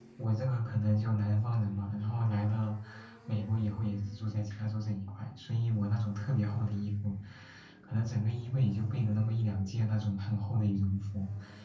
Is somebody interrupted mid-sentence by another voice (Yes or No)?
No